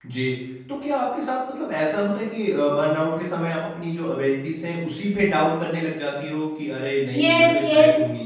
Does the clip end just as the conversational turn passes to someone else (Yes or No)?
Yes